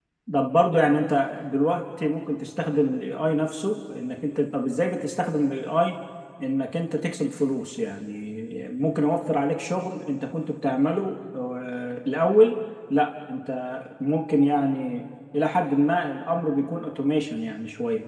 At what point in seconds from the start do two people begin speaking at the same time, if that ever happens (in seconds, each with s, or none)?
none